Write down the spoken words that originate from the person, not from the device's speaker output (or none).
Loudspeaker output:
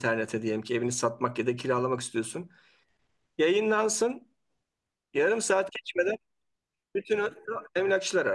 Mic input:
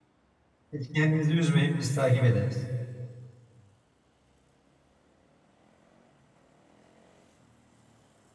Hiç Kendinizi üzmeyin biz takip ederiz.